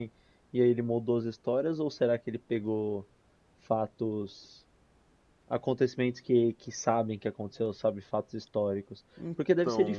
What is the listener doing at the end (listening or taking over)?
listening